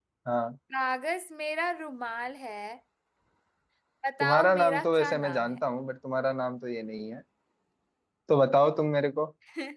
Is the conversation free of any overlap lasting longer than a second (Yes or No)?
No